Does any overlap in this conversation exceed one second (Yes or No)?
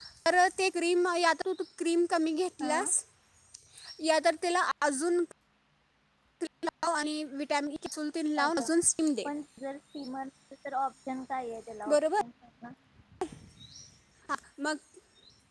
No